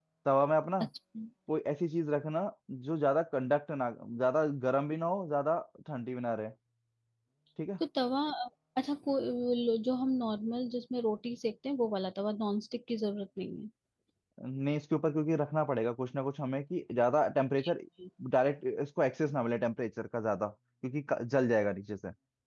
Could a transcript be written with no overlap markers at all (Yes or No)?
Yes